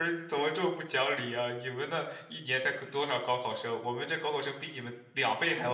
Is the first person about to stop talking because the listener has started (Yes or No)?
Yes